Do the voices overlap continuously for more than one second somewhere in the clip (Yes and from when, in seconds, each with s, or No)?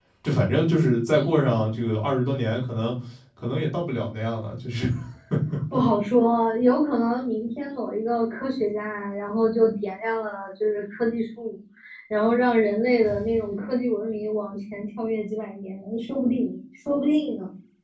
No